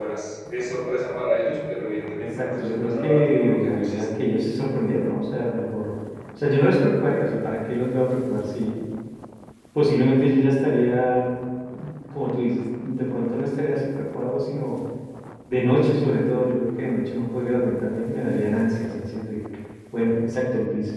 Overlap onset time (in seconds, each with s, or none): 2.4 s